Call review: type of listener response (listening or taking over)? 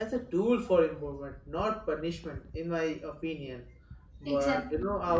listening